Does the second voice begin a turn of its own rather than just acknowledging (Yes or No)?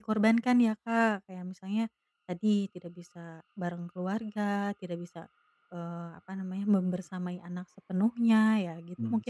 Yes